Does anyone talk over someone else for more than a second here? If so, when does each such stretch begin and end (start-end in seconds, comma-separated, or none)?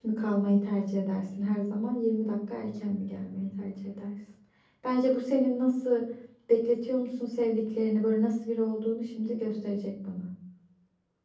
none